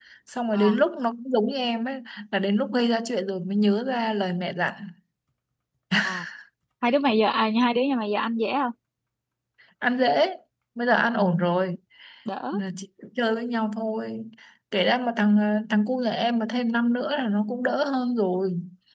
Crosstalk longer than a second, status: none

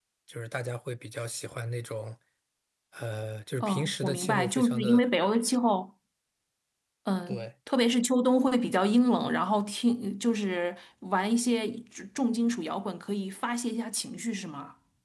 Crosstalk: present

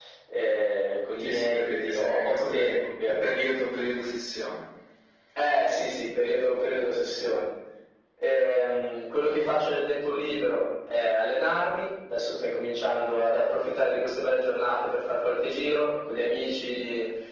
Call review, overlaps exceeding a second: present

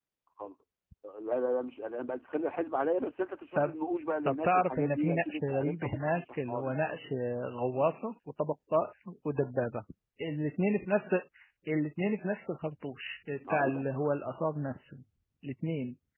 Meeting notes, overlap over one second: present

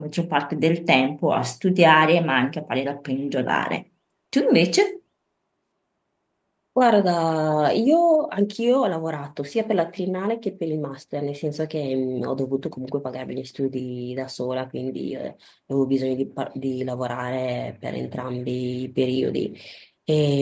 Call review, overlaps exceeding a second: none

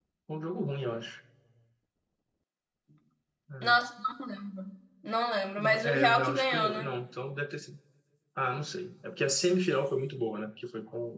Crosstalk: present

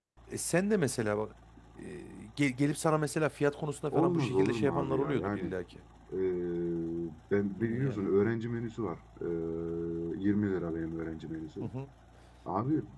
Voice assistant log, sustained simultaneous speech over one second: present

